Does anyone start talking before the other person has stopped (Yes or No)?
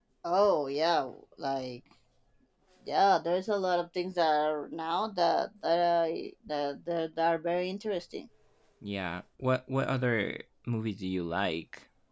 No